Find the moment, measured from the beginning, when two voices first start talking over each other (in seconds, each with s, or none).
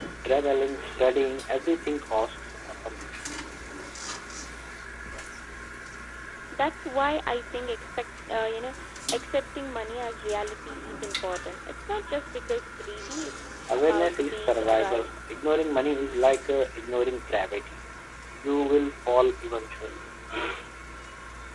13.7 s